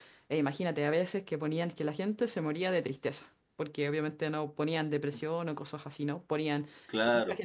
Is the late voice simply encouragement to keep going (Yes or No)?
Yes